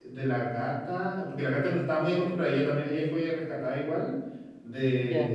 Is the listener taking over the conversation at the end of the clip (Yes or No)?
No